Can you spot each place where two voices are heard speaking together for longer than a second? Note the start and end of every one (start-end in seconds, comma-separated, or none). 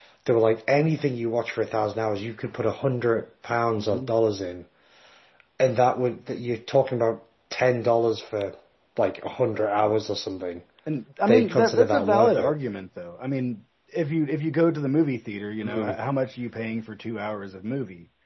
11.3-12.6